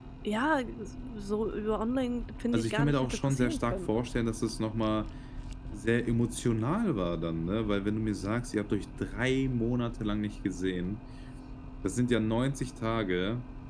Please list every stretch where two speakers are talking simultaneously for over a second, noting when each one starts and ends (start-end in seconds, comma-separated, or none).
2.5-3.9